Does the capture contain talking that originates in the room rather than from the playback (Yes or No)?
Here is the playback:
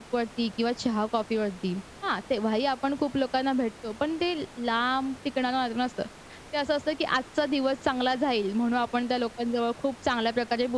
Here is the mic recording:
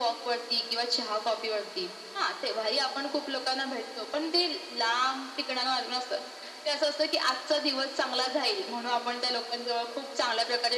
No